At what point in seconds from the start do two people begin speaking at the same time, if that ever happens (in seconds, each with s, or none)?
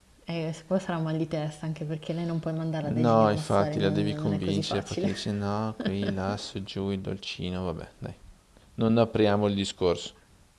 2.9 s